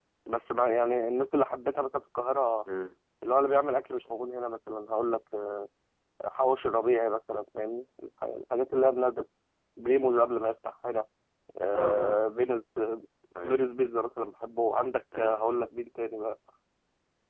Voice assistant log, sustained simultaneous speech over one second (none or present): none